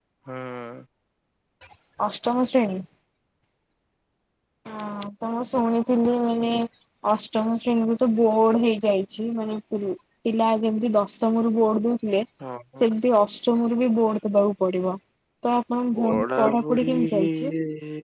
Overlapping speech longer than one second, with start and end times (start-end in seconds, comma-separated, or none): 16.0-17.3